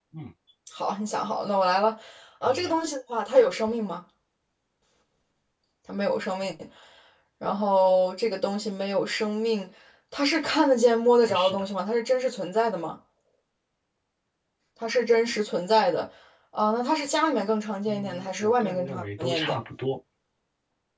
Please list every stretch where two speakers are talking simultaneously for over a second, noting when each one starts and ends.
17.8-19.6

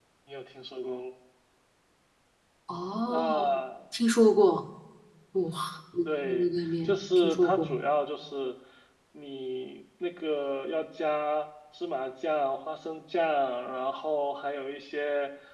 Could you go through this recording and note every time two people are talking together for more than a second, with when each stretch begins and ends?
6.0-7.7

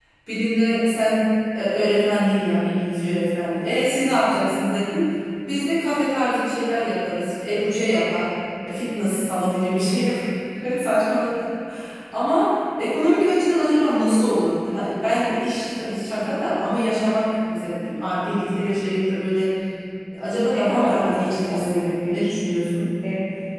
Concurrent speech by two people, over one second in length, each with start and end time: 20.4-22.3

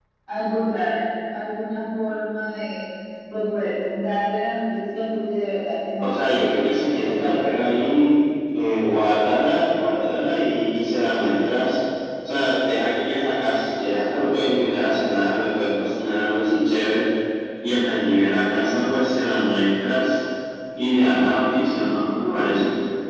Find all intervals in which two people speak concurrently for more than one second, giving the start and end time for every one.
6.0-7.4

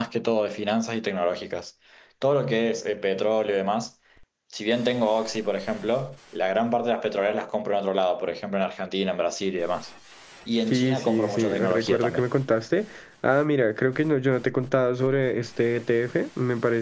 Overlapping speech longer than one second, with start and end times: 10.7-12.2

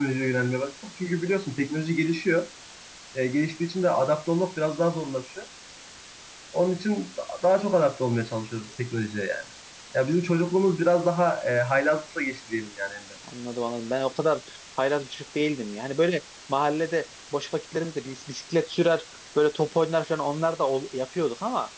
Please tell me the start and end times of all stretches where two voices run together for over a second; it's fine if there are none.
none

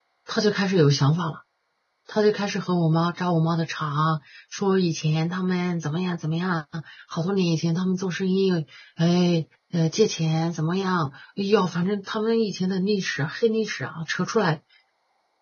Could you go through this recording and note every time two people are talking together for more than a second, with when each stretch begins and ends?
none

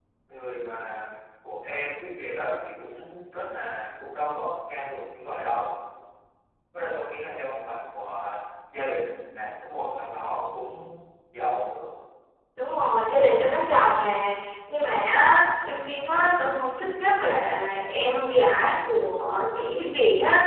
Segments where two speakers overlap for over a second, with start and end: none

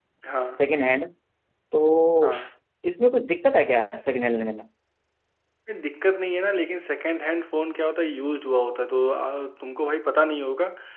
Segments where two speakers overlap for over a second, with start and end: none

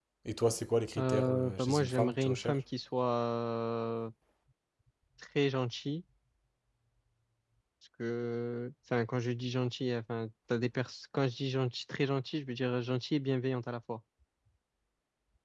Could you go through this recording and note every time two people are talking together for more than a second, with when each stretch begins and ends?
1.0-2.6

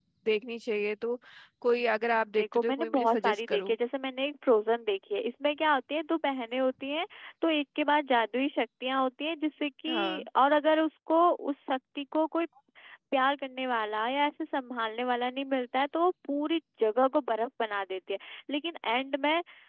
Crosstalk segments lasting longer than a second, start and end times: 2.4-3.8

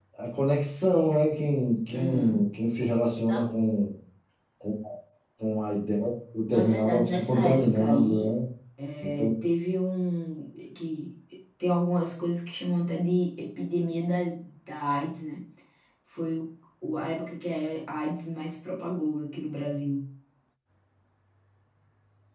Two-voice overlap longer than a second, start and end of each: 6.5-8.3

